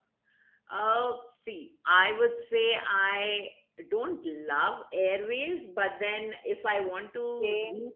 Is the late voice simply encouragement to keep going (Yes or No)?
Yes